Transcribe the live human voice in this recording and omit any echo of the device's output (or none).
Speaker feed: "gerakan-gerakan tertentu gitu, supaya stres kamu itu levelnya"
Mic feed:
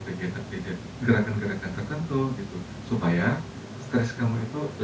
none